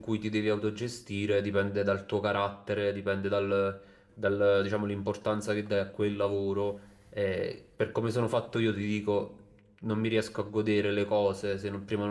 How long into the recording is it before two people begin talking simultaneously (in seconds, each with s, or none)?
none